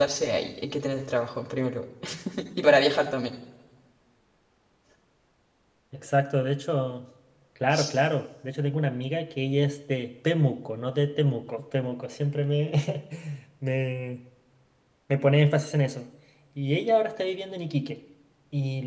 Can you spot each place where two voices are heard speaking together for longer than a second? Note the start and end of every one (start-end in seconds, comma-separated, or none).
none